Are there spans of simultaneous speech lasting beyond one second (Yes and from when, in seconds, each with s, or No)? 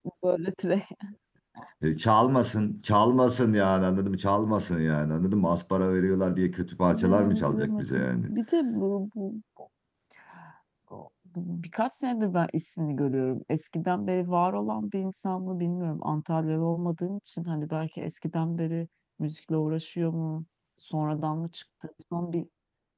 Yes, from 6.9 s